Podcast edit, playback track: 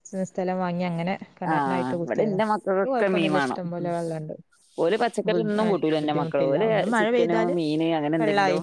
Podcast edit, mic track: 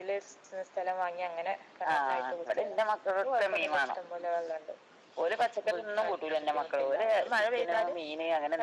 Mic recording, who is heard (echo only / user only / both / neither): echo only